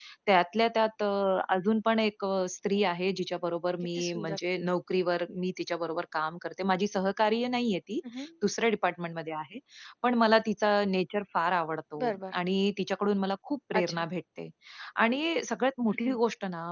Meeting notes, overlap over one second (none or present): none